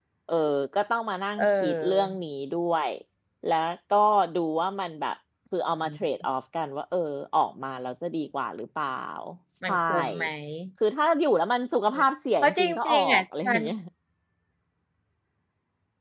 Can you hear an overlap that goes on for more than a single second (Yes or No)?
Yes